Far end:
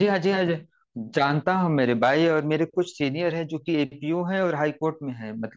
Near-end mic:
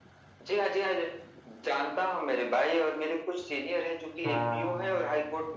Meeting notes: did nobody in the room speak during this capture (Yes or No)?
No